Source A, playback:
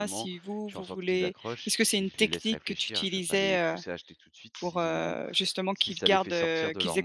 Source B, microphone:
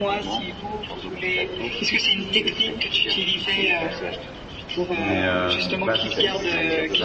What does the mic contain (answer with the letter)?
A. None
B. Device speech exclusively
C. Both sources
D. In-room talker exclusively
C